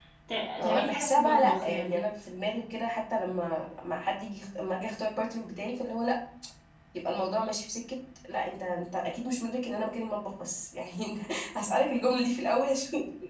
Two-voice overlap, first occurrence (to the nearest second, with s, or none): 1 s